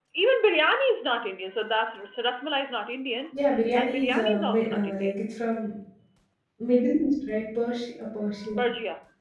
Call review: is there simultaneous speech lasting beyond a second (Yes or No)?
Yes